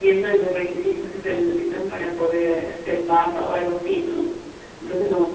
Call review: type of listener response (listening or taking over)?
listening